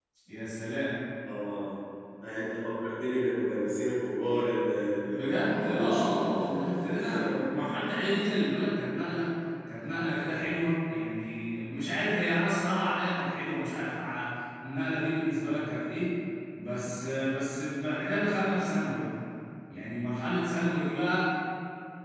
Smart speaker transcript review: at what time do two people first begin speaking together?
5.1 s

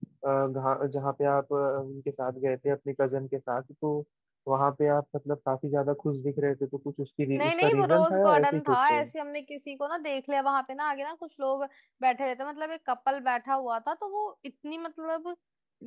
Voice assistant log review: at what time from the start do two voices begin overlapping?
7.3 s

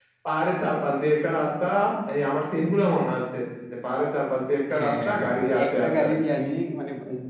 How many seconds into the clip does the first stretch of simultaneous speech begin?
4.7 s

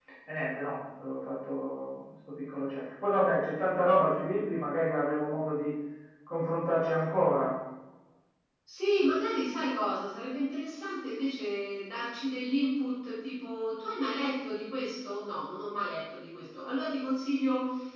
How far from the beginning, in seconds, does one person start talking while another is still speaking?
none

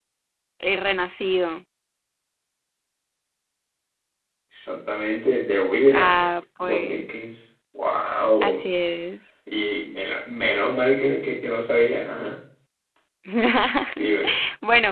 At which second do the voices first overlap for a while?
5.9 s

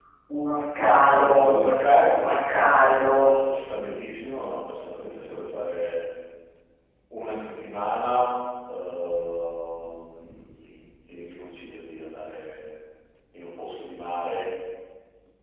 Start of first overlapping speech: 0.8 s

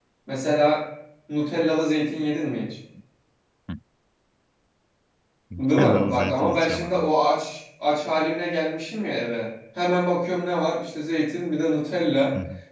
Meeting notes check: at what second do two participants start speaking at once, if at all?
5.8 s

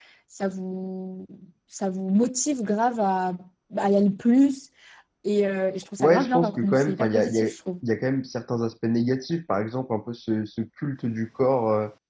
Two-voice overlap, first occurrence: 6.0 s

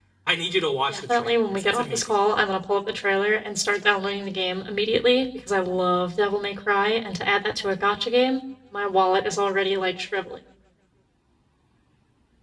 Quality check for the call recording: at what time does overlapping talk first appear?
0.9 s

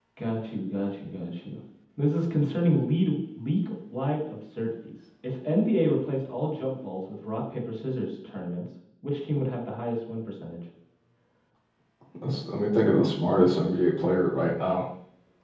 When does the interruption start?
none

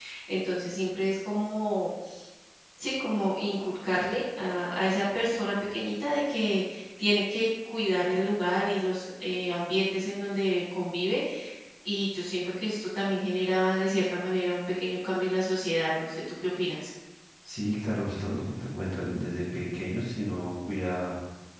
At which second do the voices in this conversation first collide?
none

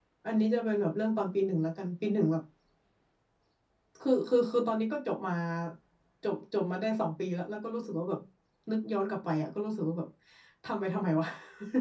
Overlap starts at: none

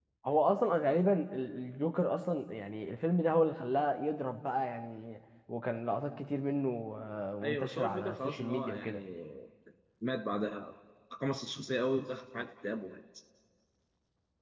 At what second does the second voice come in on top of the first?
7.4 s

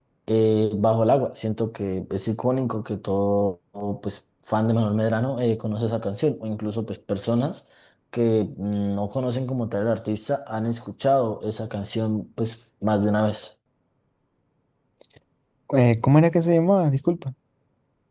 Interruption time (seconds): none

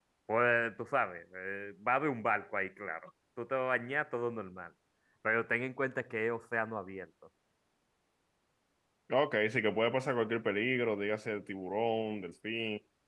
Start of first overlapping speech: none

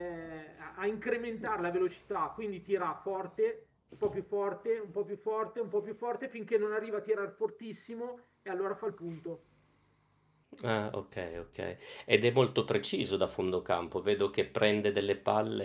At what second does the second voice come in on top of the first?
none

